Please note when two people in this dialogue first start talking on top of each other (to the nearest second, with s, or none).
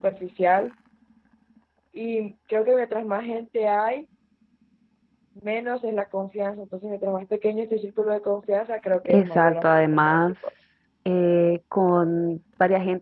9 s